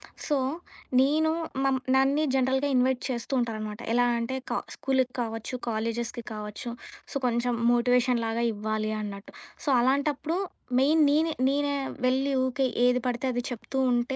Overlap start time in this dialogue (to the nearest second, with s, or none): none